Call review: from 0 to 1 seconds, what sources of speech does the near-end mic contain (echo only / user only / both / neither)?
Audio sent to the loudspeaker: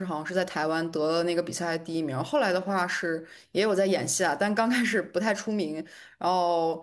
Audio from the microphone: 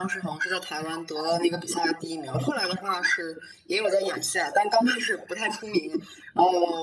echo only